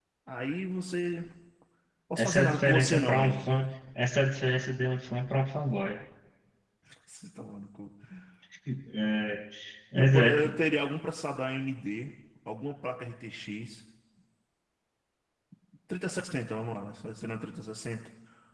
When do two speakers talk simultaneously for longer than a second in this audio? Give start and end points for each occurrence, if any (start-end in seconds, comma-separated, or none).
2.2-3.5